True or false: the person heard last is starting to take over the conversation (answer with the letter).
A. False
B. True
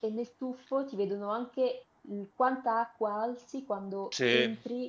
A